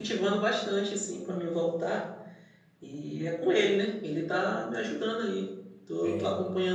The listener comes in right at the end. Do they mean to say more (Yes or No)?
No